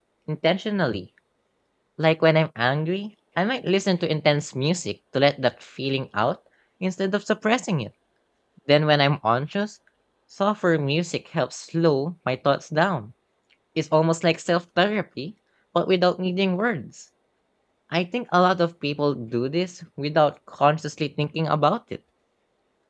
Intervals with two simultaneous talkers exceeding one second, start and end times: none

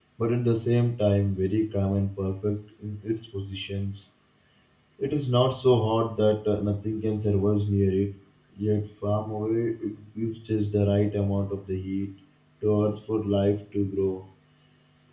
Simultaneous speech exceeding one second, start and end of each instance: none

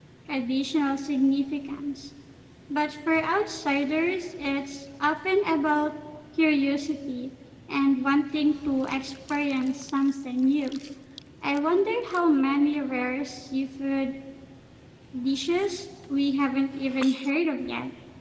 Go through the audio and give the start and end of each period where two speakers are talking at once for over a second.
none

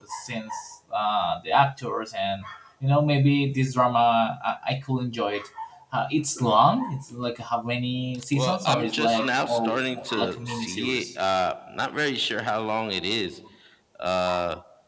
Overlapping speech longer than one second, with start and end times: 8.3-11.1

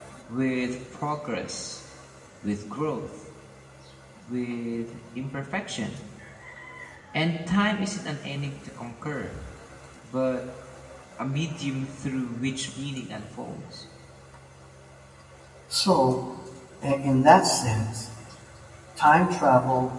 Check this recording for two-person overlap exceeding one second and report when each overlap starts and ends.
none

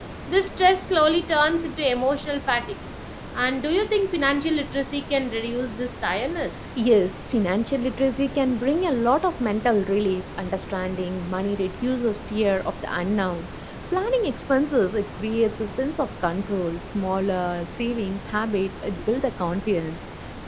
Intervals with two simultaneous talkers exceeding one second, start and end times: none

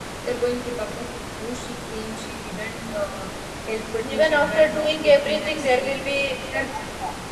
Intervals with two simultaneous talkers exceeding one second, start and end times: 4.0-6.0

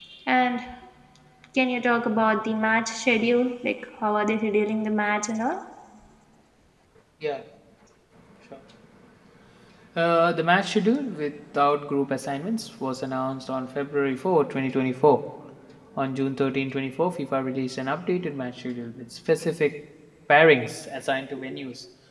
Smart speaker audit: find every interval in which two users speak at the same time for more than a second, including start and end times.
none

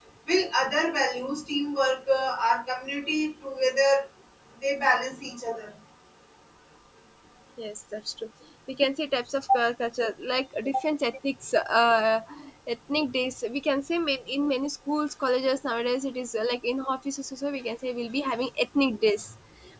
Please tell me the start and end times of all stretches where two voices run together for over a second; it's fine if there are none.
none

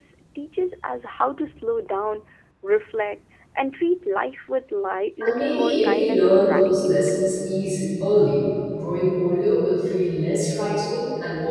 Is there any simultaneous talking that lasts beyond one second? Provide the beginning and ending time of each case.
5.2-7.1

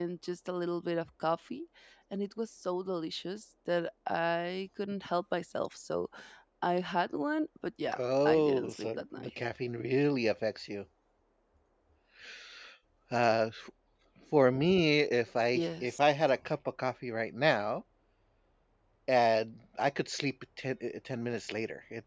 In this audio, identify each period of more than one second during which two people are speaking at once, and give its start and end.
8.0-9.3

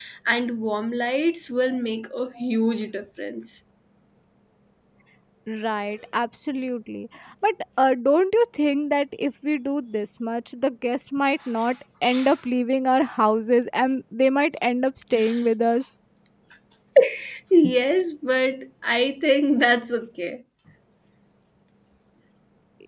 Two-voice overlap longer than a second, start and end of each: none

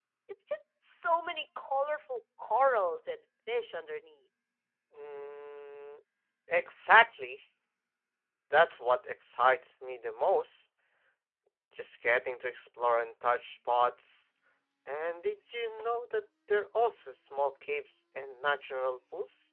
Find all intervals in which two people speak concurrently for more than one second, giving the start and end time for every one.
none

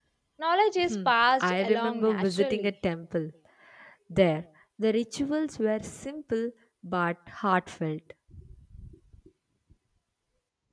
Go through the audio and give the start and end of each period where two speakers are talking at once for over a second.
1.4-2.7

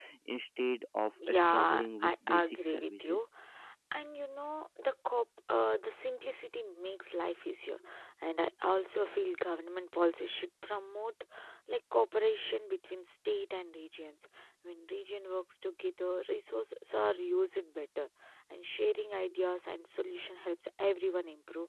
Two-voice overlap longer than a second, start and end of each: 1.3-3.2

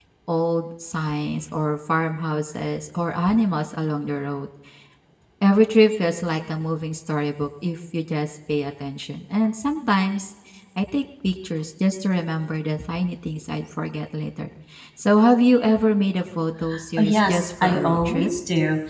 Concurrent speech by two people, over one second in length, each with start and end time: 17.0-18.3

